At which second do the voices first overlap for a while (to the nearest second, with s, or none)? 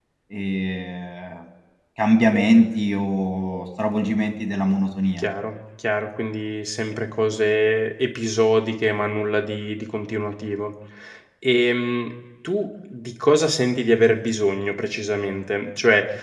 none